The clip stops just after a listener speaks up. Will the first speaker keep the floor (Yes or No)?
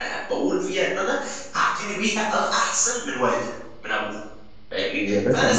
No